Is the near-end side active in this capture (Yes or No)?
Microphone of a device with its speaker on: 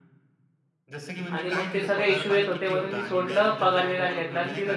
Yes